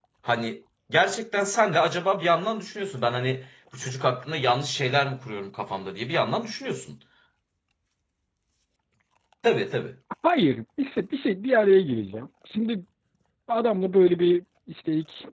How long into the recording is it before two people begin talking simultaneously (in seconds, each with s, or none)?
none